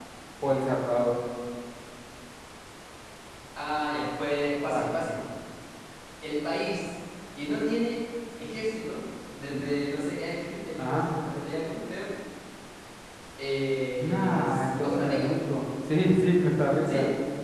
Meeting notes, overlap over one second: present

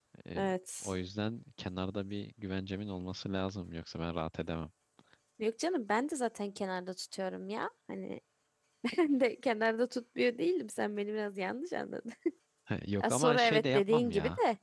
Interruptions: present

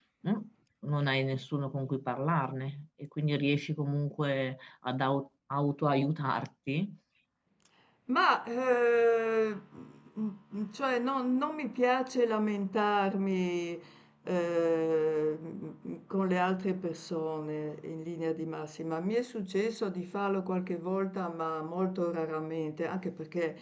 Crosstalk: none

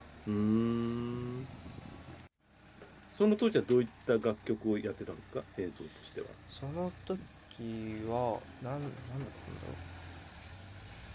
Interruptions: none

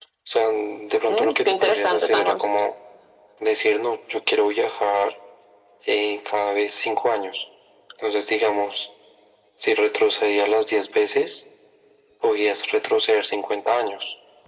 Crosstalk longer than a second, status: present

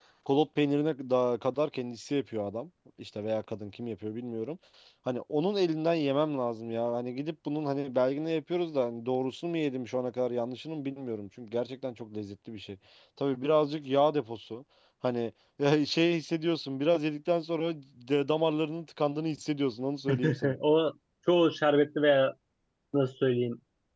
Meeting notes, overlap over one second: none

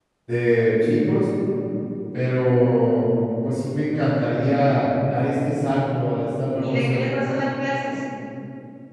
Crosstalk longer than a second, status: none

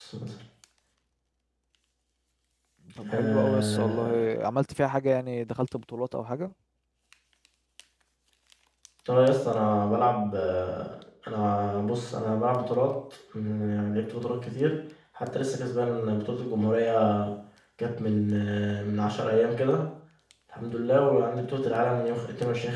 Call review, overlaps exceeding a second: present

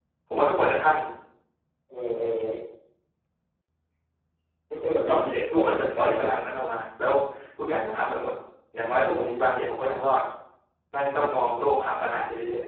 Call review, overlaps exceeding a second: present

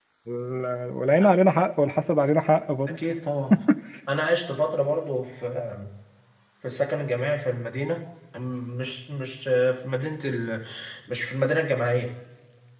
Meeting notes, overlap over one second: none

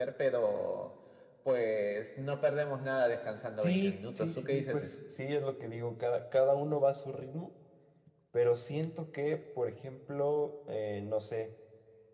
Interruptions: present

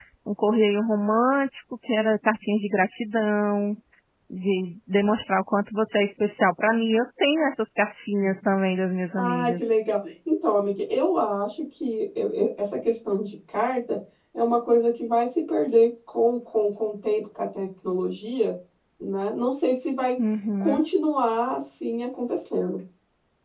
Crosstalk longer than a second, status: none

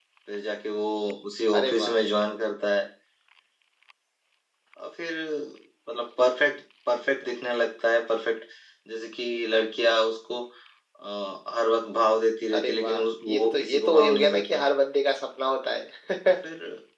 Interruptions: present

